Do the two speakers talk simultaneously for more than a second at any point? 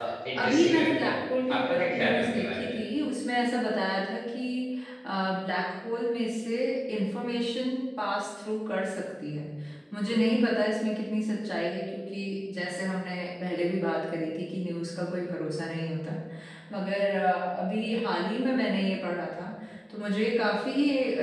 Yes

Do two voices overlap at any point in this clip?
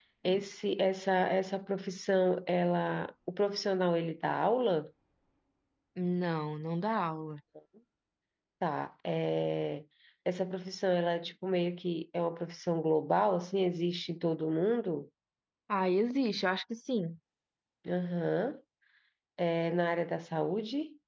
No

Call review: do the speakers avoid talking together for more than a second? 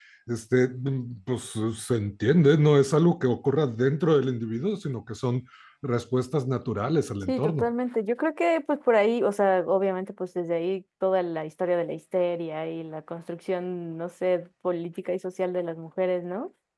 Yes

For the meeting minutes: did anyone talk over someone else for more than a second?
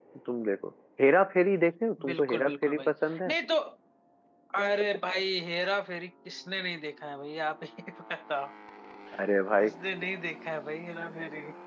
Yes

